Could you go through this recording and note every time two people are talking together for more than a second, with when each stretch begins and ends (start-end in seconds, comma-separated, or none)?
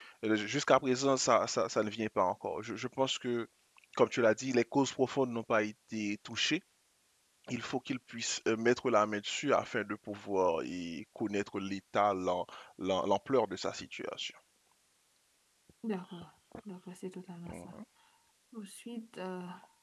none